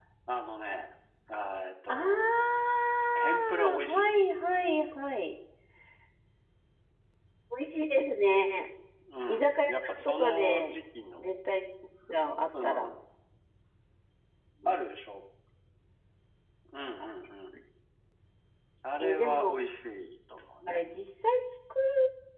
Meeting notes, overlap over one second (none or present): present